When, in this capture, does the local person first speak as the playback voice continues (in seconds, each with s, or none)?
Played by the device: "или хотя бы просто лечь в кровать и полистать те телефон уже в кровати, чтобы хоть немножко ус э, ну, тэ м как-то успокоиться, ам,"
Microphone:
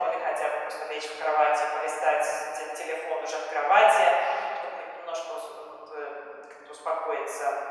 none